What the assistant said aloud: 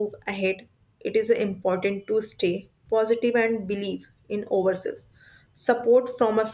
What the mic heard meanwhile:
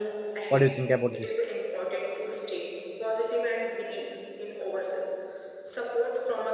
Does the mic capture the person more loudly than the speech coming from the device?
Yes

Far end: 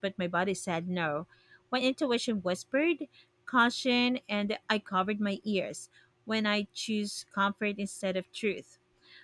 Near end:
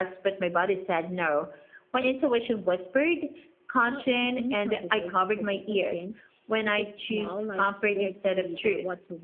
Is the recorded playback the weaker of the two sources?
No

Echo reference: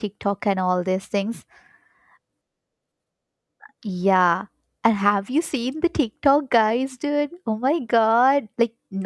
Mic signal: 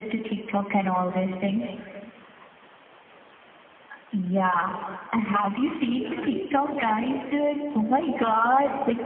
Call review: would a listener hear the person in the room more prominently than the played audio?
No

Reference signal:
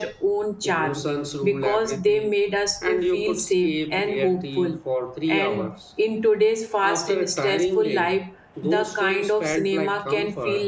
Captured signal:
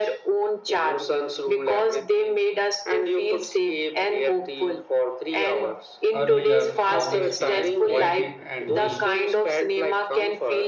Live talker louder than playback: No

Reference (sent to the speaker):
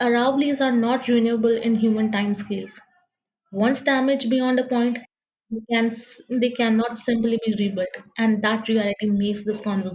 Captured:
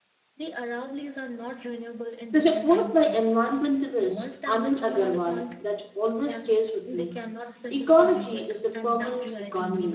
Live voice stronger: Yes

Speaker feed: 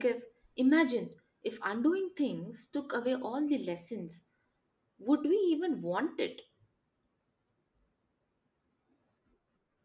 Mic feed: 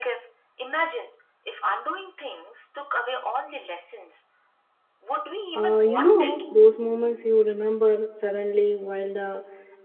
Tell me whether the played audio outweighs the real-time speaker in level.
No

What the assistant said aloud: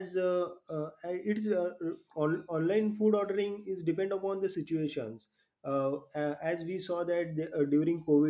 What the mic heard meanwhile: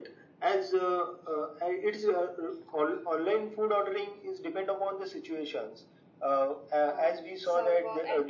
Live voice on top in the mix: No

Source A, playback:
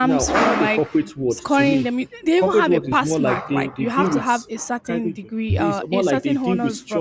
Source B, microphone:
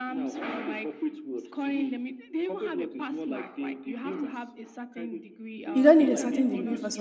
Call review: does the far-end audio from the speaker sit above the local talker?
No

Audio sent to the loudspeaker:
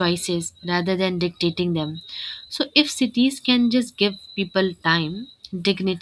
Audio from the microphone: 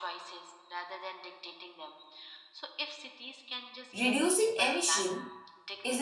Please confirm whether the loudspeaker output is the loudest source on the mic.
No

